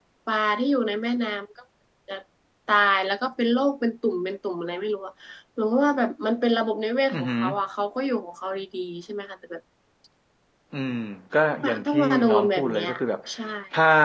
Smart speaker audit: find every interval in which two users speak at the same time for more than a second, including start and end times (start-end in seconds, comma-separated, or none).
11.5-12.9